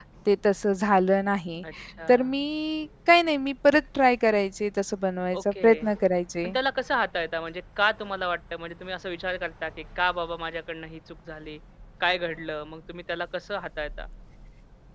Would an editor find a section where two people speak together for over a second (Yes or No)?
No